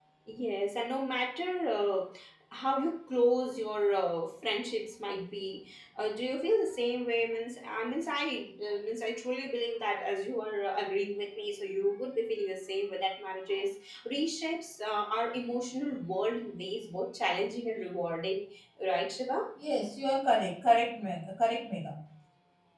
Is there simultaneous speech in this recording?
No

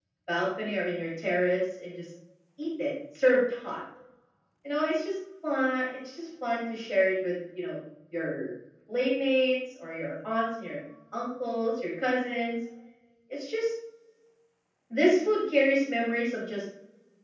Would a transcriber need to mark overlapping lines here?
No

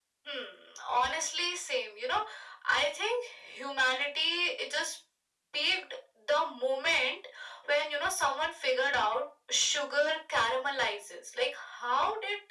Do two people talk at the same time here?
No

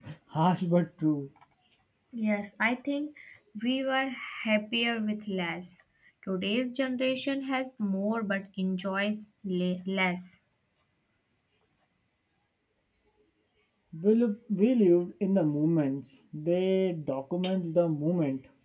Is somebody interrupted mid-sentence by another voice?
No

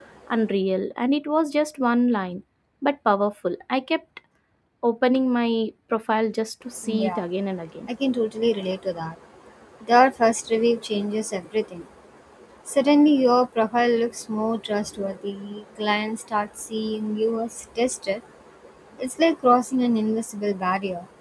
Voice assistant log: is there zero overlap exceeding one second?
Yes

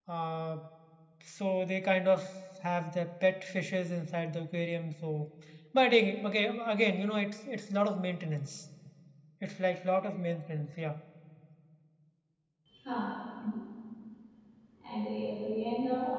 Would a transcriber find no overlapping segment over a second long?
Yes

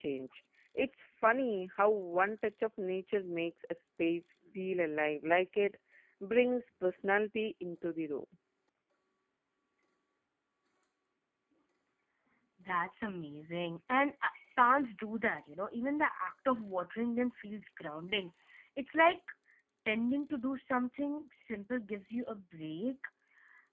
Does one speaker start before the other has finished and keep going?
No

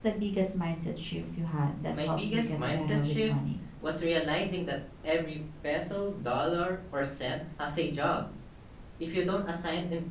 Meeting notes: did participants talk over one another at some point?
Yes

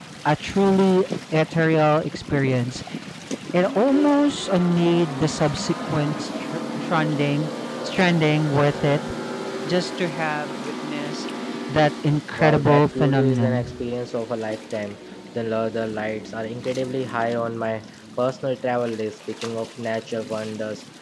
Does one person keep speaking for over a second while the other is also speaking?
Yes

